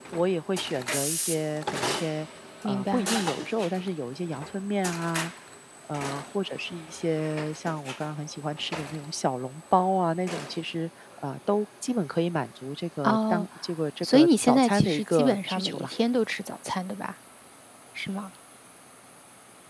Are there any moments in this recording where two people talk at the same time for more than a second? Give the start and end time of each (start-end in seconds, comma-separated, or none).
14.0-15.9